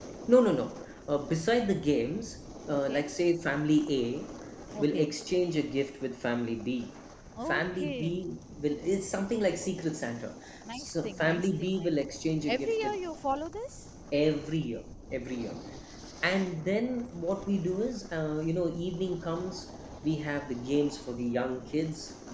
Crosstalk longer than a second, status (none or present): present